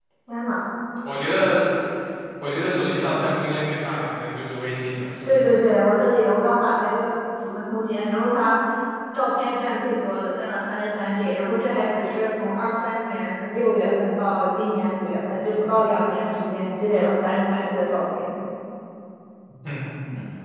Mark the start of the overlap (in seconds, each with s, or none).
none